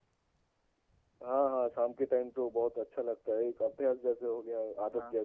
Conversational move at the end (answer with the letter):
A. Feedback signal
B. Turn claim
B